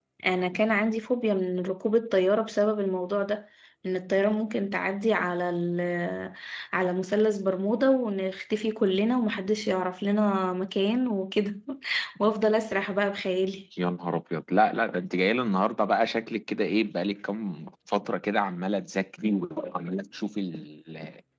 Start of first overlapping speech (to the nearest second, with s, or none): none